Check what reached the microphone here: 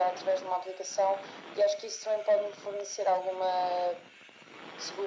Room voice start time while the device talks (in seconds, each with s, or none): none